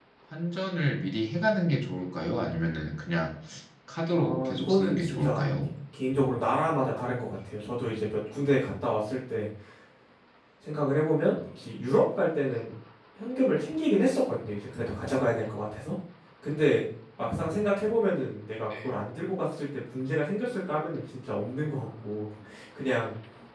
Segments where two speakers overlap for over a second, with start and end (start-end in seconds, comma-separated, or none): 4.1-5.4